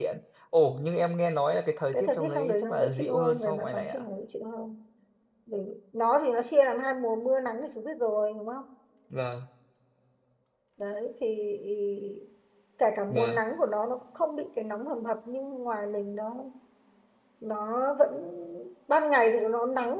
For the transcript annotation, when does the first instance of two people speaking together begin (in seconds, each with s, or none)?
1.9 s